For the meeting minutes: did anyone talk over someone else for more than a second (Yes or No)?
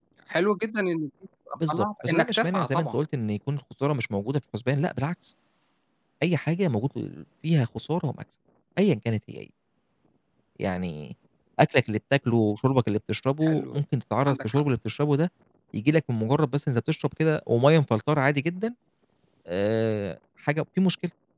Yes